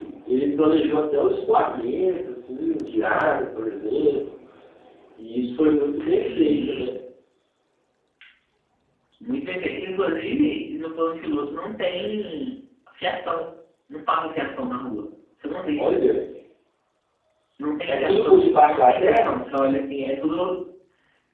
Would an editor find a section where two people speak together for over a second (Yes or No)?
Yes